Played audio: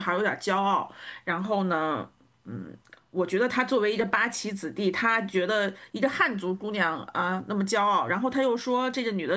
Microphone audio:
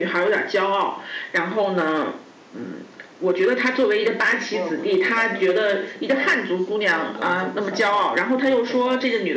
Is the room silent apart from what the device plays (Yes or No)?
No